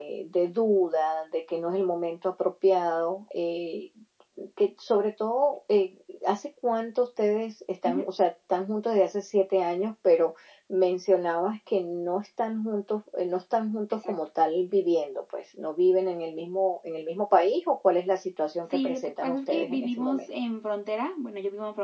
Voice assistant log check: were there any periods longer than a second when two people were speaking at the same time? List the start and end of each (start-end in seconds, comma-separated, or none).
18.7-20.3